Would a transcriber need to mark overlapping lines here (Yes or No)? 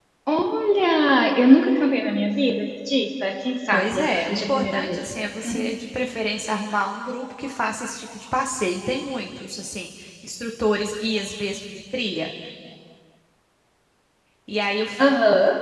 Yes